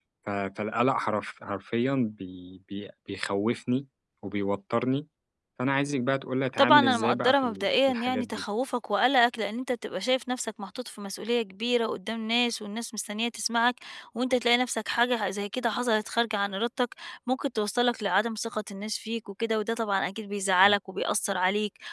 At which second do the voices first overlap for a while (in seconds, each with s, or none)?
6.6 s